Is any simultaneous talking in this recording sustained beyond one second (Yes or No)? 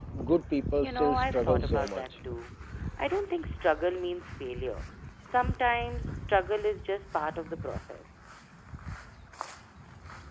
Yes